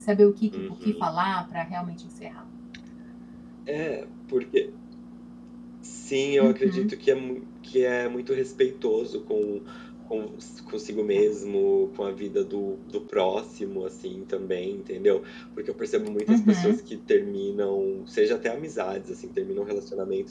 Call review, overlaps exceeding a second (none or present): none